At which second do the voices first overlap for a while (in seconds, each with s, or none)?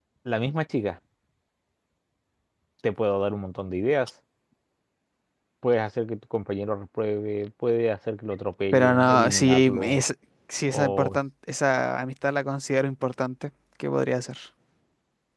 8.7 s